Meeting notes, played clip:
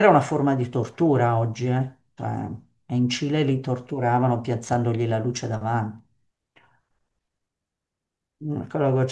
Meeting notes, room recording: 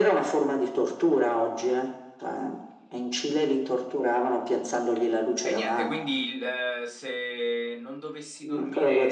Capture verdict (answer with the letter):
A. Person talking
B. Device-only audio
A